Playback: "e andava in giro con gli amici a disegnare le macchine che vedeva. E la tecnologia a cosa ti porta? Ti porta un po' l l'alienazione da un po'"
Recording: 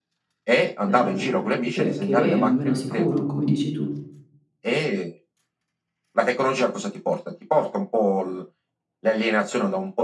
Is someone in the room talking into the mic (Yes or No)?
Yes